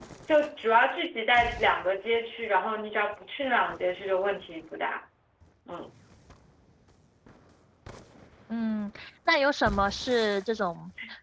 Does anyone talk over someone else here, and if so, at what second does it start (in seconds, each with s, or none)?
none